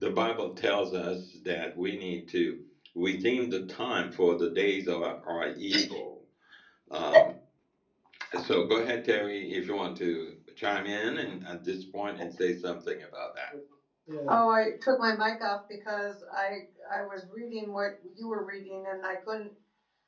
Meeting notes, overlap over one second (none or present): none